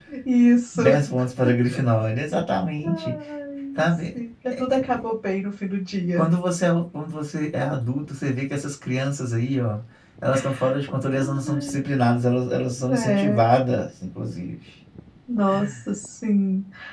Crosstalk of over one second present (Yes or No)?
No